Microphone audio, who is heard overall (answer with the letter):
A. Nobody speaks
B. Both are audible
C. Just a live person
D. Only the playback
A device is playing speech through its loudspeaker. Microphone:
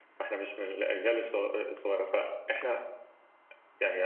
C